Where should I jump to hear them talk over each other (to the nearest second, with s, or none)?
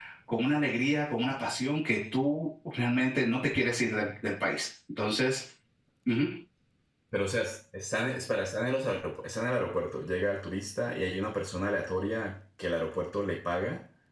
none